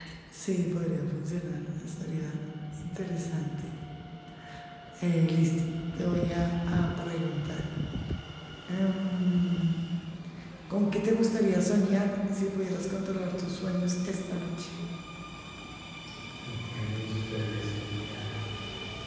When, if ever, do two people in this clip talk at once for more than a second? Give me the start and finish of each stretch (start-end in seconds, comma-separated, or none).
none